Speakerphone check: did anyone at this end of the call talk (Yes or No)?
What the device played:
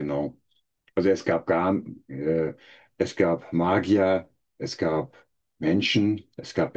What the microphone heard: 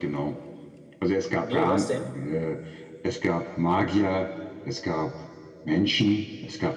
Yes